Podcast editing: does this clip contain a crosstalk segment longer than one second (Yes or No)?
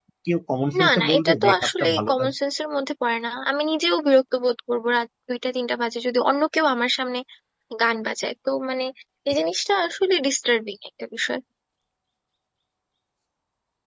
Yes